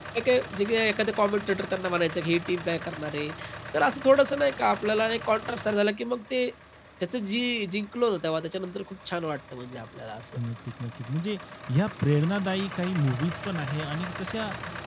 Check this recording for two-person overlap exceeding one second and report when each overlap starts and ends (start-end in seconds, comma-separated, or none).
none